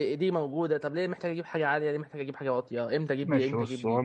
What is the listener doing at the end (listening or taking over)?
taking over